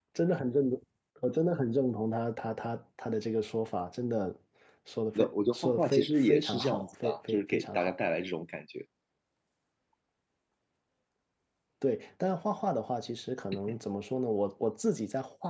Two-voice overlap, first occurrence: 5 s

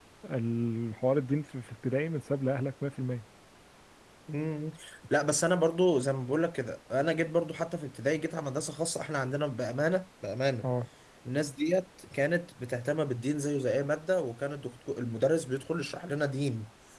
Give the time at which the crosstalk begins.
none

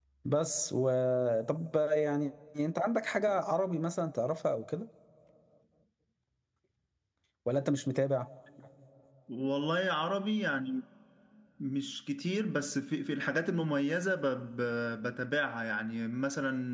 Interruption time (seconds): none

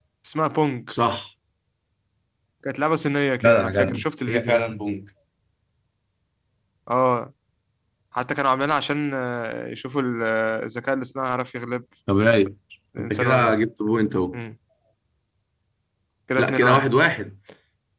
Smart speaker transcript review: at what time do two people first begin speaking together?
3 s

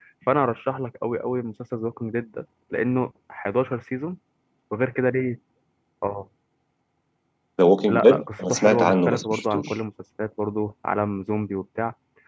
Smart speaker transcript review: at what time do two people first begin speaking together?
8 s

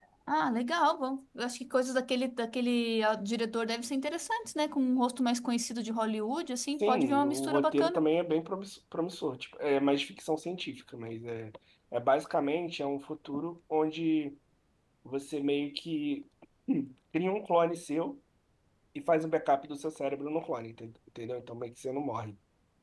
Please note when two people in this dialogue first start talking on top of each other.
7 s

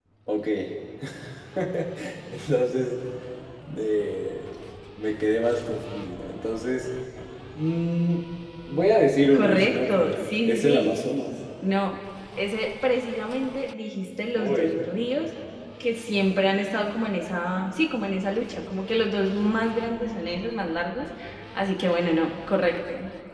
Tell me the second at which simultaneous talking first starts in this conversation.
9 s

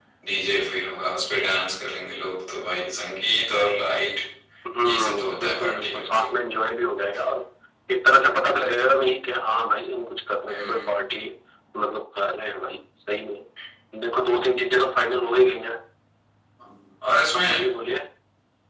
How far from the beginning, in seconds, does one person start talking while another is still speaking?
5 s

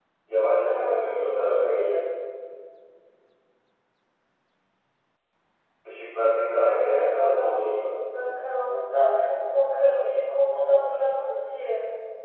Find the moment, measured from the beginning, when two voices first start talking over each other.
1 s

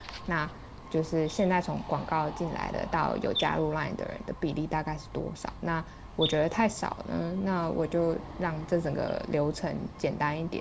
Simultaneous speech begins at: none

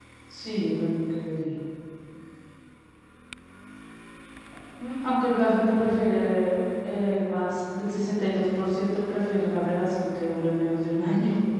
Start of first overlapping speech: none

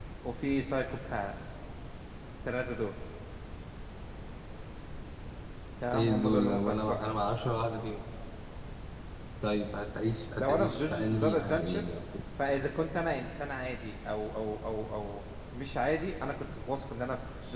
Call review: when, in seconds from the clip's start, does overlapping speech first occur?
6 s

